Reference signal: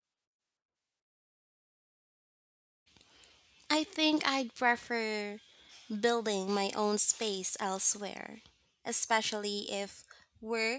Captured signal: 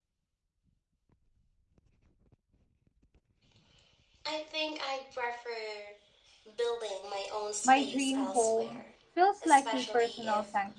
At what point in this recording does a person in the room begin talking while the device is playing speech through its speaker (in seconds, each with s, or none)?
7.6 s